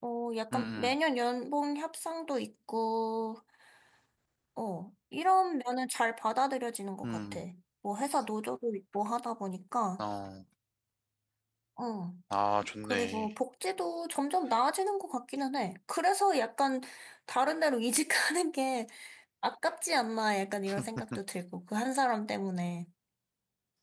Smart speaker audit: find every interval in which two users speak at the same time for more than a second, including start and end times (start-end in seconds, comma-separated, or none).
none